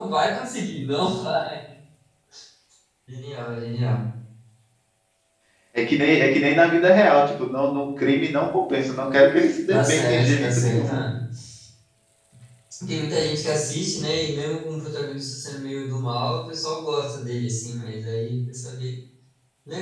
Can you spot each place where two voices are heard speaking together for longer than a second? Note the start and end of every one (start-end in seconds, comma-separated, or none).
9.7-11.0